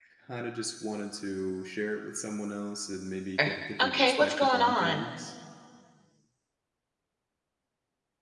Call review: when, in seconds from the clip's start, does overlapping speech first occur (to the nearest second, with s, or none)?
3 s